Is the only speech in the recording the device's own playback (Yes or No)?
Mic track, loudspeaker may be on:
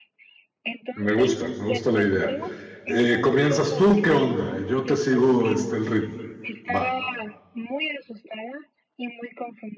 No